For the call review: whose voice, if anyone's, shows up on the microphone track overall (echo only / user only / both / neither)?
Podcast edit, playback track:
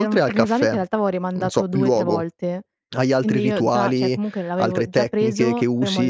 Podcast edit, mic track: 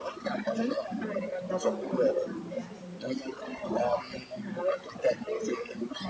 both